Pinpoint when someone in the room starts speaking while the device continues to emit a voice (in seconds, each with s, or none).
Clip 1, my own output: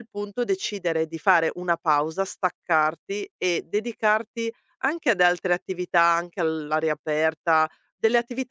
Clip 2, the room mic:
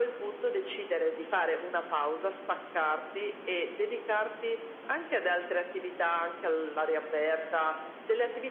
none